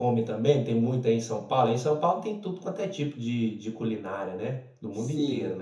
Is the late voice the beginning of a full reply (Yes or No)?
Yes